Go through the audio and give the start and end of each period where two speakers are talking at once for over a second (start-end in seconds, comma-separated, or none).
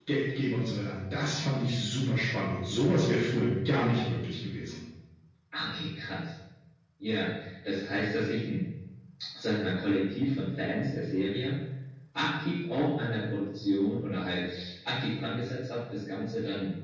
none